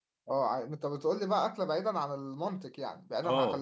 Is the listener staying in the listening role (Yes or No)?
No